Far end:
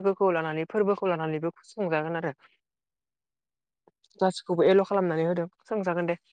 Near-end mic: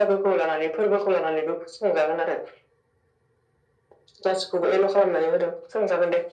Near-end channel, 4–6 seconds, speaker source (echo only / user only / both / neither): echo only